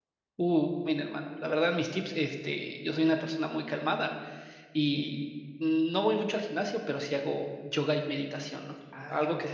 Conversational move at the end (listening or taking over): listening